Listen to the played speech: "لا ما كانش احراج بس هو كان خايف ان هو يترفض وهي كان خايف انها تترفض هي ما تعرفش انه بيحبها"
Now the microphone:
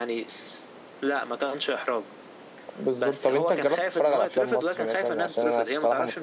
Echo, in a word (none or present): present